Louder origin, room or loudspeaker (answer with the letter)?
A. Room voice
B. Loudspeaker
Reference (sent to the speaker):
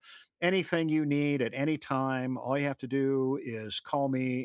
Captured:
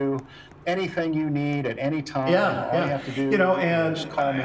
A